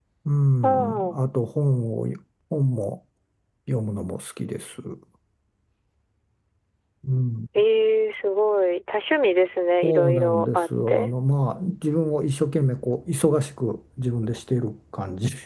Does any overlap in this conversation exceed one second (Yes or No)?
Yes